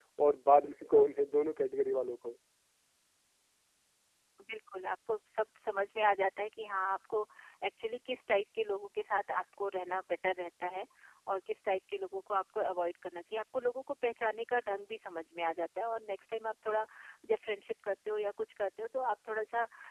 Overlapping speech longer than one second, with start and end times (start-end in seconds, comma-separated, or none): none